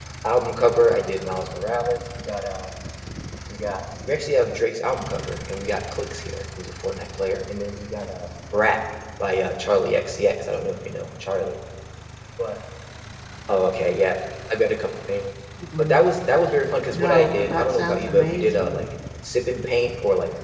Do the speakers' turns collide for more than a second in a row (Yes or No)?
Yes